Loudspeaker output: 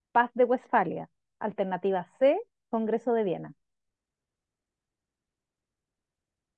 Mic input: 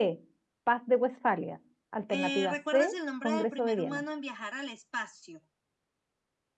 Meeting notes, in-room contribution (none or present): present